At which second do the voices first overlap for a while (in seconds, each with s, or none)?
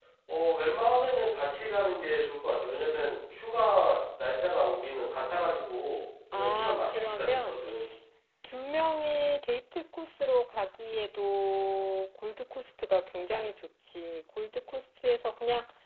6.3 s